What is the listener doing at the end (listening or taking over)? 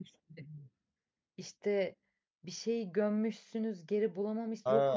taking over